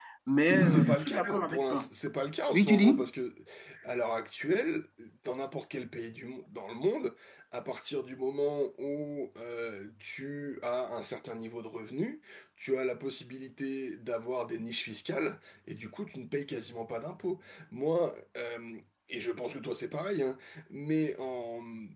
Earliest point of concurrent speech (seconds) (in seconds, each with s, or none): 0.6 s